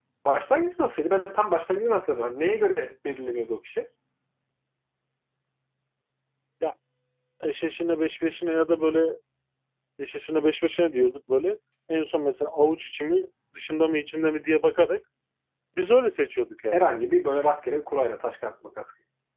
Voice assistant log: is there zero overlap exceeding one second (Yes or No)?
Yes